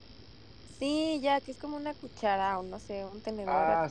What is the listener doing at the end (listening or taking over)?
taking over